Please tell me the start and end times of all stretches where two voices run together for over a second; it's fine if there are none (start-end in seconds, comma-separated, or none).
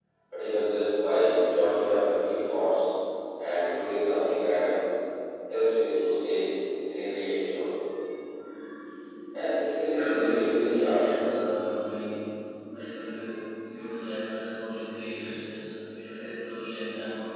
9.9-11.2